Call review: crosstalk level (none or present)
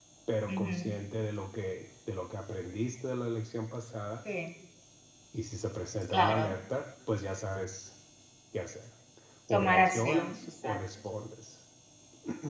present